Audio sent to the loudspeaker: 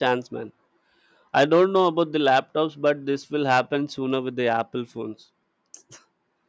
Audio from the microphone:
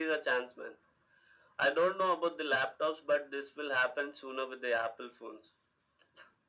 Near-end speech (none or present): none